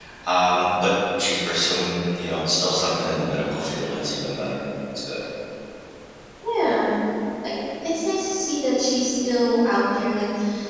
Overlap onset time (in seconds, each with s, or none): none